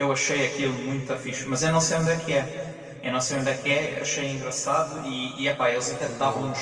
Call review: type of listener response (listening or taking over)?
listening